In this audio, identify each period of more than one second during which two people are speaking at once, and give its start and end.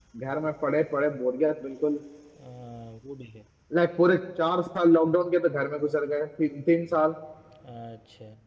none

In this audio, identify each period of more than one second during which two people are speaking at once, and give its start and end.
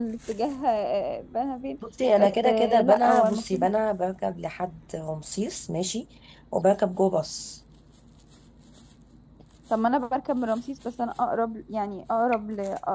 2.2-3.7

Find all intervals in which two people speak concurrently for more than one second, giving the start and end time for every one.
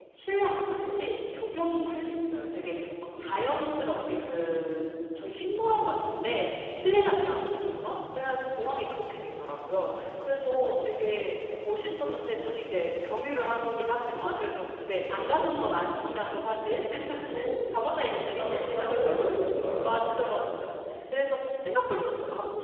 18.1-19.3

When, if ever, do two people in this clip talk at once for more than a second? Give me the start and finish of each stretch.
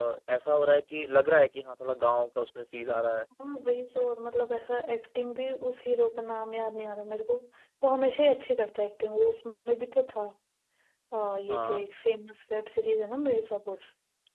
none

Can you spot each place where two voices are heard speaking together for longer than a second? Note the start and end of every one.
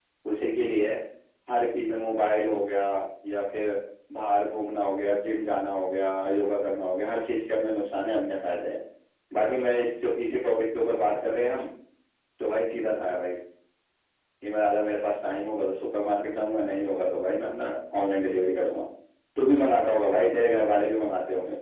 none

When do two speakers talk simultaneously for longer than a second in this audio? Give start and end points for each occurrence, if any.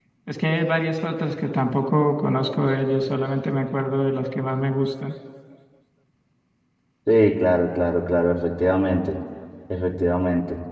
none

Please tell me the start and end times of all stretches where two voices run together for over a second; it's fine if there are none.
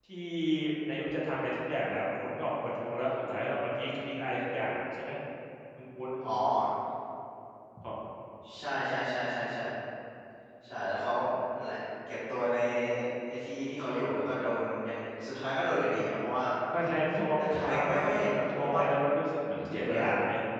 17.4-18.8

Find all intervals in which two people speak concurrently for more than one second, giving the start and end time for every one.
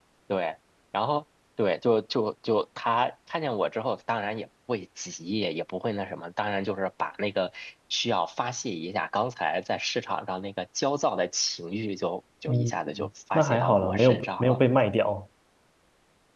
13.3-14.6

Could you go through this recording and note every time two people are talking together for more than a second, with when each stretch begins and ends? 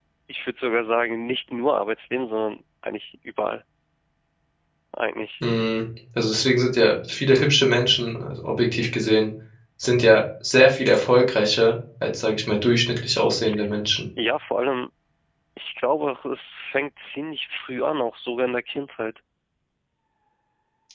none

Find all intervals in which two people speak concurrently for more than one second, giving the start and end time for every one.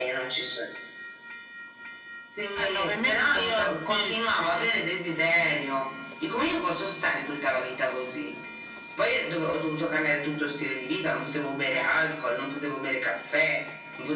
2.5-4.7

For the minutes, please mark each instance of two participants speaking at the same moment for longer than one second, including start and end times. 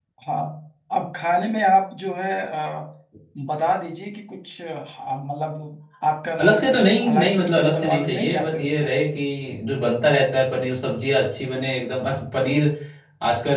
6.4-8.9

